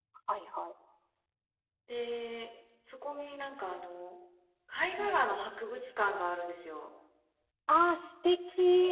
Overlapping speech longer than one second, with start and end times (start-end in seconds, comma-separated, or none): none